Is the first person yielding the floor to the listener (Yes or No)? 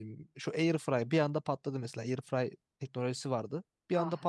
No